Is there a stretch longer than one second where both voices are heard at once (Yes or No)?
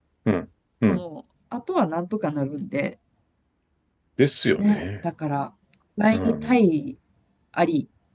No